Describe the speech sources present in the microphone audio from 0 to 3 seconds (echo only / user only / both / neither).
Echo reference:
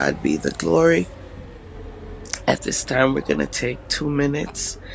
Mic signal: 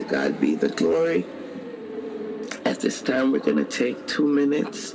echo only